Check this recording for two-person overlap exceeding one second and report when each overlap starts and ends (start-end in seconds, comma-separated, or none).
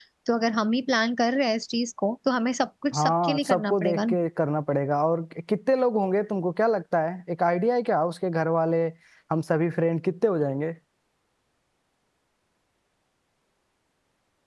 2.9-4.2